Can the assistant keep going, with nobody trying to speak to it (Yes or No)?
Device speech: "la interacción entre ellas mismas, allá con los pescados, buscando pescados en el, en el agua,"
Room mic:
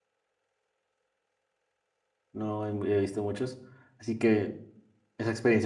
No